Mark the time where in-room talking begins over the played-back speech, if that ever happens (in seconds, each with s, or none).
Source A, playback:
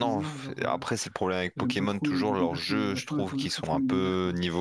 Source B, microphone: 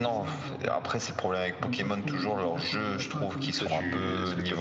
3.6 s